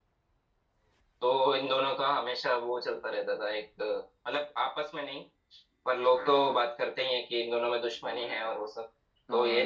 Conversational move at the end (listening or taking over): taking over